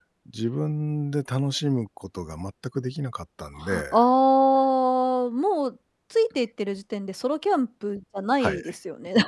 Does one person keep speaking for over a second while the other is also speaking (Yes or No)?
No